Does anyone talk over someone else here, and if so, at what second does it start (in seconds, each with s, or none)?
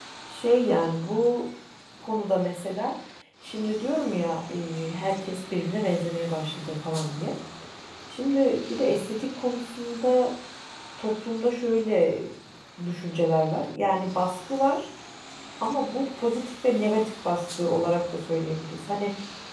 none